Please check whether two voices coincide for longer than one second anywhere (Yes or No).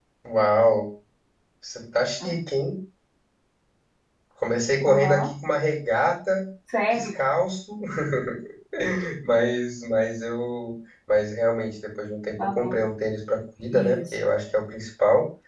No